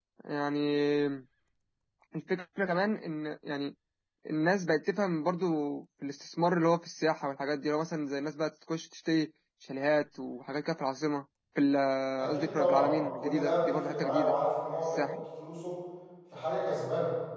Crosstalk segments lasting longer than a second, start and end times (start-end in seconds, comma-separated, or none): 12.2-14.3